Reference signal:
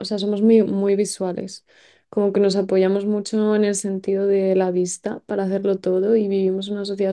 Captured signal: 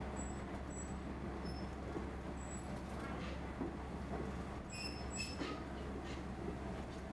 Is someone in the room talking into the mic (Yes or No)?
No